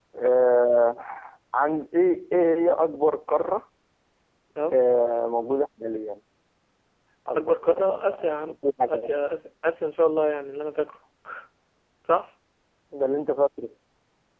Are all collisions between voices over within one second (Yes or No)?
No